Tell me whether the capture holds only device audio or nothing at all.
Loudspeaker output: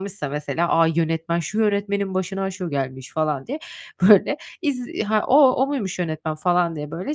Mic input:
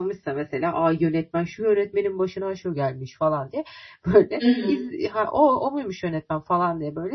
No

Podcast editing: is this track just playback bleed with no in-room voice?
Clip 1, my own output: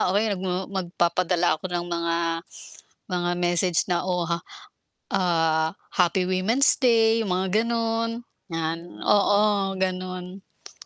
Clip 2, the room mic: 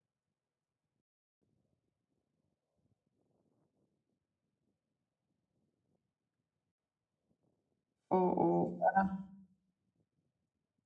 No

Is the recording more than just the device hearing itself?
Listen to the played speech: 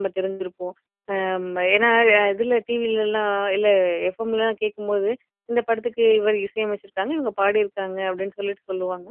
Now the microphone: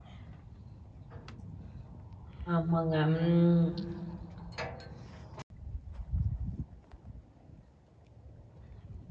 Yes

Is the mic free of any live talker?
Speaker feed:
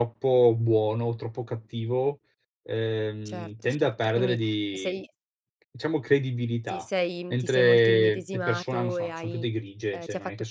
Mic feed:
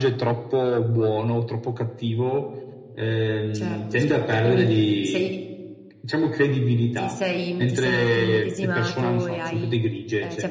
Yes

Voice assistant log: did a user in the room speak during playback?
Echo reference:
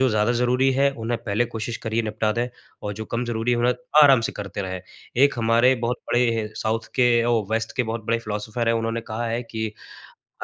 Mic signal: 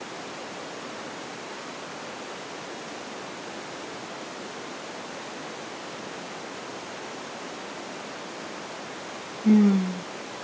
Yes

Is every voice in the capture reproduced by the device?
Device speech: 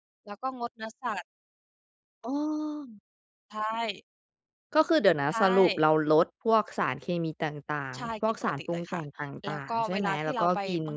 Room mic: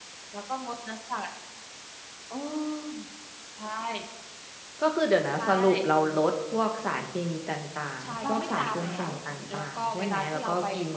No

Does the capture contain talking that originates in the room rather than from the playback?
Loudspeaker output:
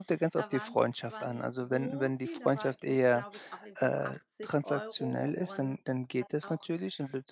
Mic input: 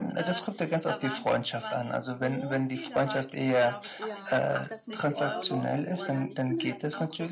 Yes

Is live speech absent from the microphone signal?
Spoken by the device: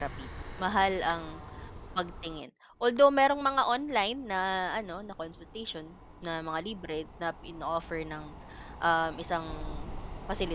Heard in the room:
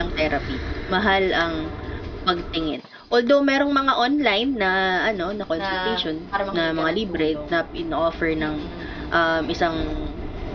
No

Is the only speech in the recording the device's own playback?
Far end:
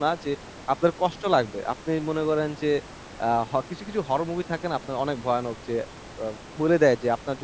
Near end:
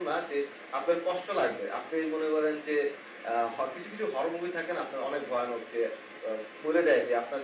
Yes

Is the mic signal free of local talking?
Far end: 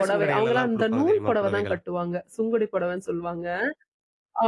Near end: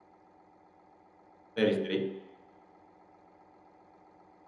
No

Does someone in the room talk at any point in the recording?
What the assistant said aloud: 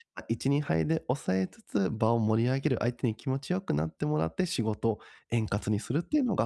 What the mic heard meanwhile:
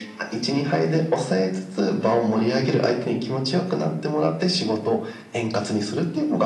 No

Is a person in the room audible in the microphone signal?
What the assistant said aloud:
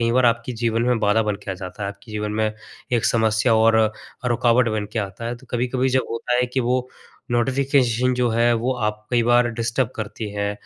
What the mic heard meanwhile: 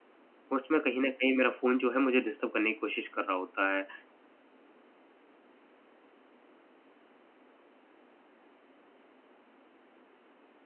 Yes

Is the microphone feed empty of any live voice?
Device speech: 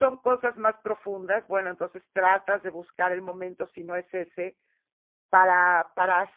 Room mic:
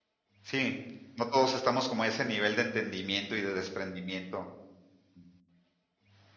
No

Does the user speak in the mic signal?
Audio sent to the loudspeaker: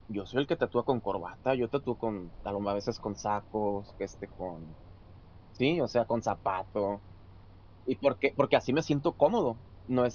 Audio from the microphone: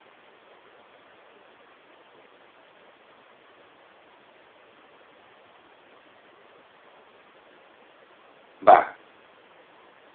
Yes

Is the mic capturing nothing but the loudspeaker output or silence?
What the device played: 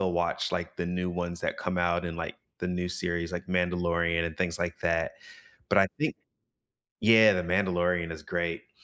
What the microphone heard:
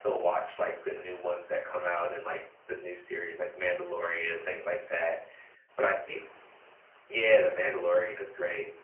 Yes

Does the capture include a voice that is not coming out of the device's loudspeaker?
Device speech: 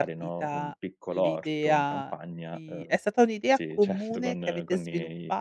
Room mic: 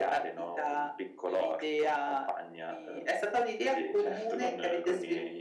No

